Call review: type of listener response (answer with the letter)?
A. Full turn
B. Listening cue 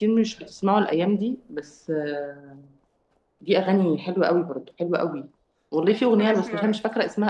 B